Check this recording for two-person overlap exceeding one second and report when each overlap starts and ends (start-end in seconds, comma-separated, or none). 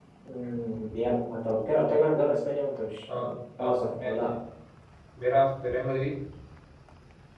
3.1-4.3